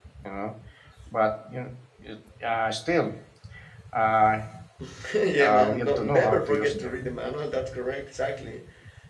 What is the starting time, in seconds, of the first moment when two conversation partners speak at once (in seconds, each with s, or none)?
5.4 s